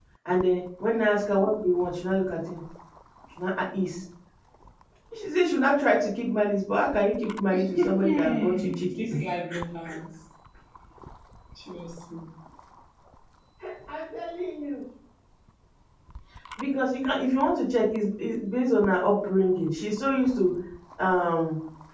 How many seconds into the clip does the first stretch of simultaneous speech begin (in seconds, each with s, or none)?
7.5 s